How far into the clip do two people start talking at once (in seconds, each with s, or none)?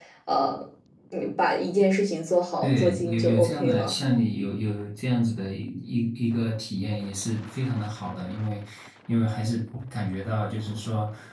2.6 s